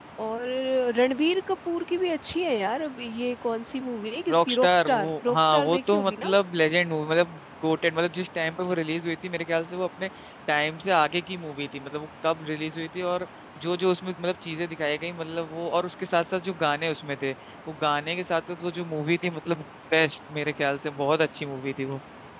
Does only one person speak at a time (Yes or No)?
No